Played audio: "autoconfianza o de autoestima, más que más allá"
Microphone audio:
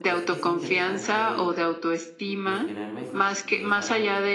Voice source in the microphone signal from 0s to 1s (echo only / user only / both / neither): both